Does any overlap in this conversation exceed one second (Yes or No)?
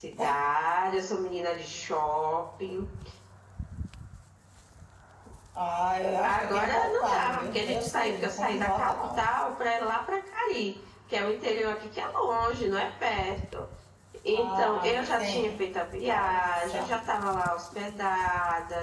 Yes